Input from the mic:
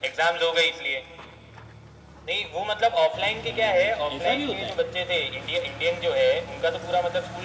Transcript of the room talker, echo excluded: अच्छा ऐसा भी होता है

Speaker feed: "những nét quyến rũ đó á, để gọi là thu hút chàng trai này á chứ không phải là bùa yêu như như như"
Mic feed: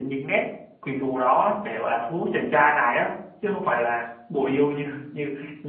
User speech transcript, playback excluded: none

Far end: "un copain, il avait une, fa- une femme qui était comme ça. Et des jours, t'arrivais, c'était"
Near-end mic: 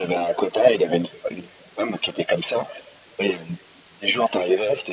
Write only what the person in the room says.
none

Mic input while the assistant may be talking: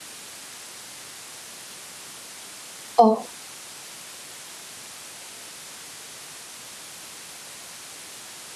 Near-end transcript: 哦，

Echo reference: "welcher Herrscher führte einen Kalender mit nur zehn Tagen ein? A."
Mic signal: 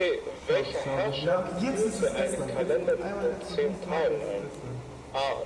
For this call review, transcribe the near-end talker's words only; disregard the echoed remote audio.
Schade, schade. Ja, okay, jetzt ist es Estland. Jetzt, wo ich einmal Estland nicht sage, ist es Estland.

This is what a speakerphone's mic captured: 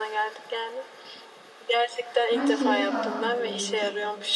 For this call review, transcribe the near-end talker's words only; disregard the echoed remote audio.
Ben şeyi fark ediyorum.

